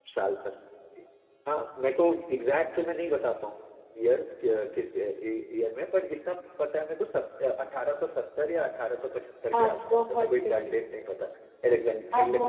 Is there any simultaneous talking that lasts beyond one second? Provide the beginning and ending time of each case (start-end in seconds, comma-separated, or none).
9.5-10.8